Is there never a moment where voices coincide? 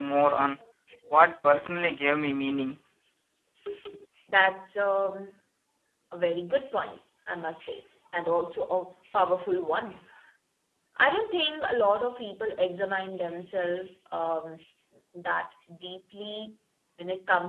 Yes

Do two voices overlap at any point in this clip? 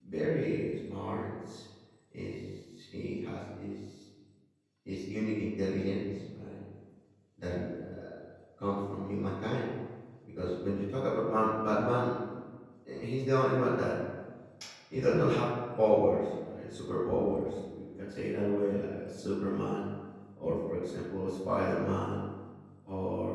No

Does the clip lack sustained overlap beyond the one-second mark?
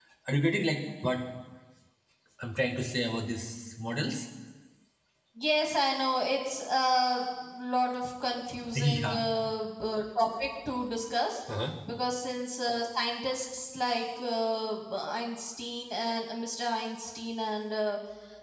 Yes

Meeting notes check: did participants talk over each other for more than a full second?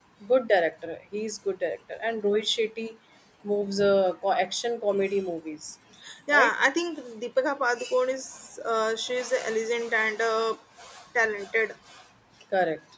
No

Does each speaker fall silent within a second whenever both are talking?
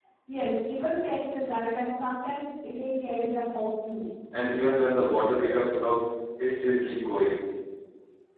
Yes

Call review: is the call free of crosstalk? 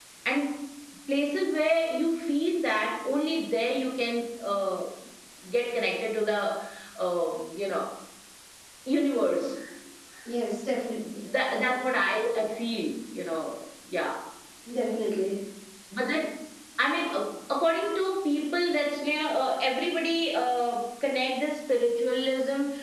Yes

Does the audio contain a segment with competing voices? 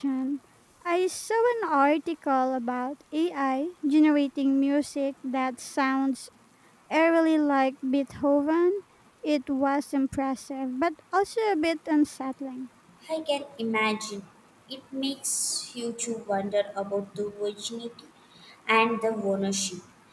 No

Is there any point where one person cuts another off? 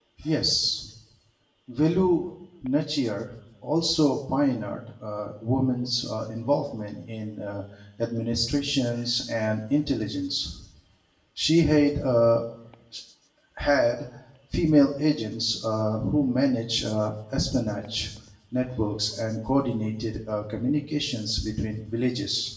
No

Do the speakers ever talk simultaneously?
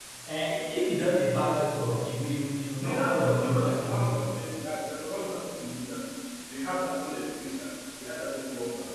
Yes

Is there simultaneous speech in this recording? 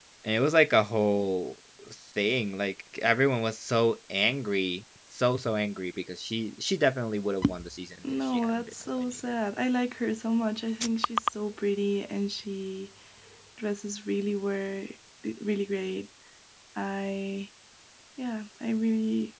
Yes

